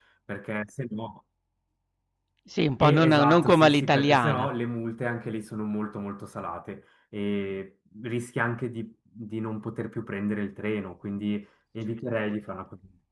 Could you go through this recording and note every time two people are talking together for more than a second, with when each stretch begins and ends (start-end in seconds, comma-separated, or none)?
2.8-4.5